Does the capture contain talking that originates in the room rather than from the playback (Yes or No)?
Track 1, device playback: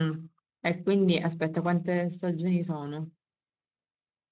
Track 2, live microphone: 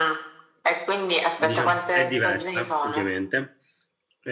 Yes